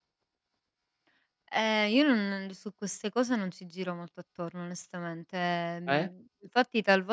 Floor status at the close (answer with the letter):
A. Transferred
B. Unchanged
B